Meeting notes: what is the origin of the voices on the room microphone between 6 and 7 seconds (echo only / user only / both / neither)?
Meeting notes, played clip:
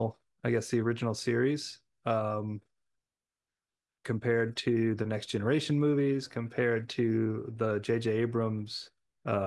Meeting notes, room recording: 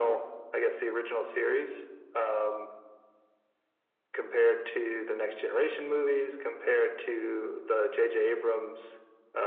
echo only